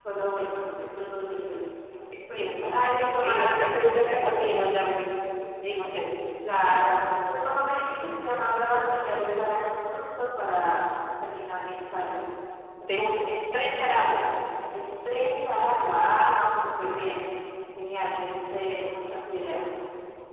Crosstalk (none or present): present